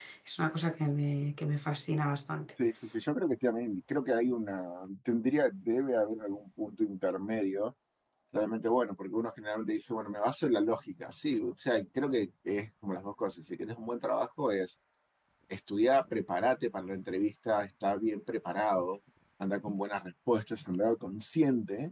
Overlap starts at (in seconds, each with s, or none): none